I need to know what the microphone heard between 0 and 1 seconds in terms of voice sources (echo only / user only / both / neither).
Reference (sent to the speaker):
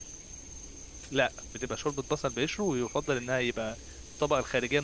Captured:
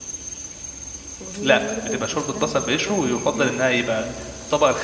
neither